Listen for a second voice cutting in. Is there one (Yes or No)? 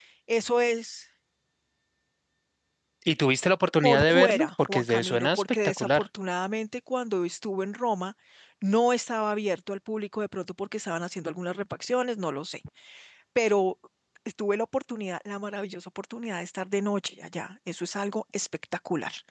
Yes